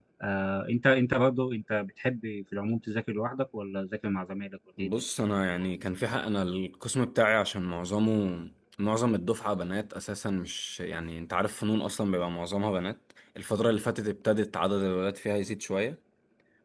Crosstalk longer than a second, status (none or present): none